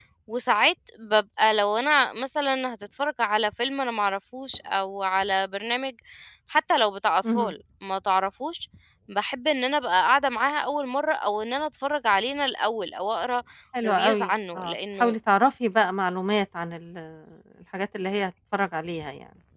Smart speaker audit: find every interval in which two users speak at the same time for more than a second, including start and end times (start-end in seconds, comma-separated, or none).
13.8-15.2